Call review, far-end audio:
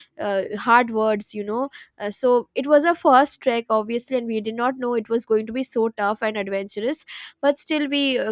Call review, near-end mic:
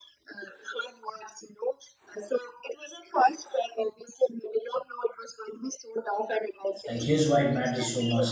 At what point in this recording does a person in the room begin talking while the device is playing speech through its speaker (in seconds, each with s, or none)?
6.9 s